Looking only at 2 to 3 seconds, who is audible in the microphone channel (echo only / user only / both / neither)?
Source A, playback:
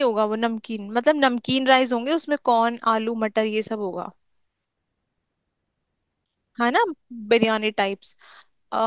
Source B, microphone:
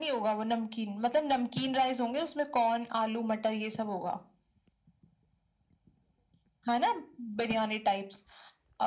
echo only